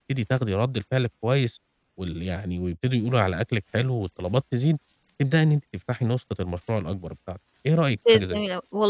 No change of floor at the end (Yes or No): No